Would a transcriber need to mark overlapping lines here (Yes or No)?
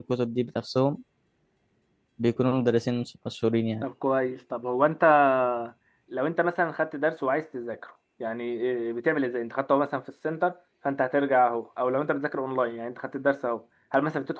No